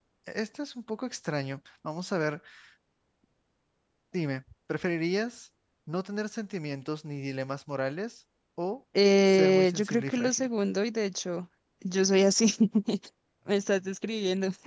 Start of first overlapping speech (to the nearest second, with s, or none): 9 s